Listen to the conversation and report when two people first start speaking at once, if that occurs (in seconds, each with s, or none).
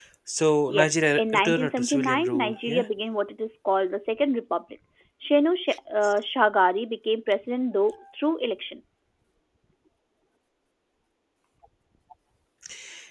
0.7 s